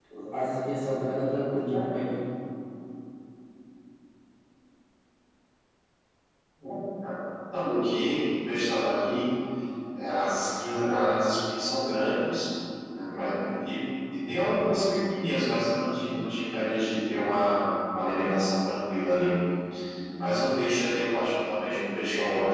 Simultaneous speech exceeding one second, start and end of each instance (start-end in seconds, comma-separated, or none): none